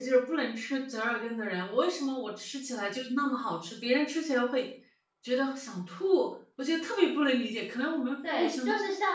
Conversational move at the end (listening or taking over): taking over